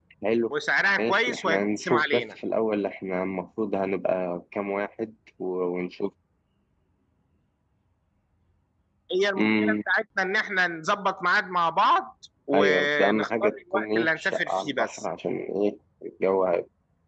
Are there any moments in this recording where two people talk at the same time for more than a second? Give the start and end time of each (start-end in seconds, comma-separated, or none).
1.0-2.2, 12.5-15.0